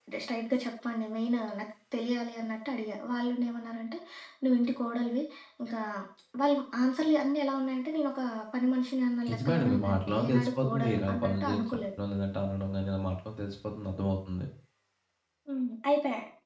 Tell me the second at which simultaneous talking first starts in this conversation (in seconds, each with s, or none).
9.3 s